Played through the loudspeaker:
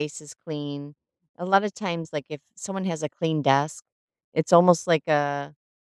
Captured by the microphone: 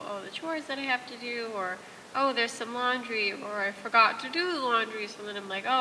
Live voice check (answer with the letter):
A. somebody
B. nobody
A